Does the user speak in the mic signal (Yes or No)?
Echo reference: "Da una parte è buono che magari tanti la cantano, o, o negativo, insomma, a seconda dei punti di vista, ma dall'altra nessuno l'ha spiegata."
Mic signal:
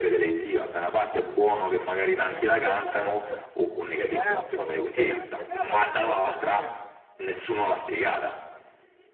Yes